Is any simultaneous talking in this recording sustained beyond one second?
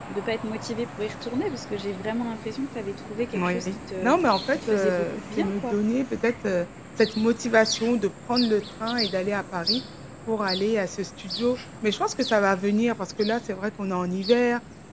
Yes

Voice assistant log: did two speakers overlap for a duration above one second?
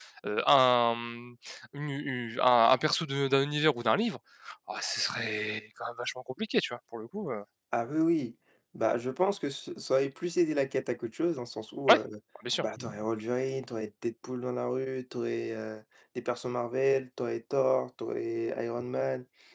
No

